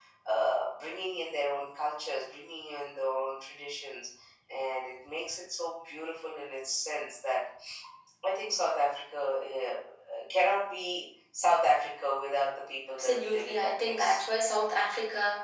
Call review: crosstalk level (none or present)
present